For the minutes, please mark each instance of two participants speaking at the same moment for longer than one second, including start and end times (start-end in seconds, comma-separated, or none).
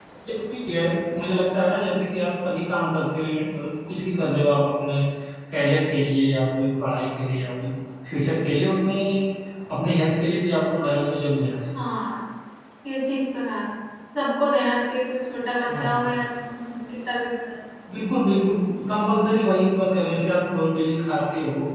none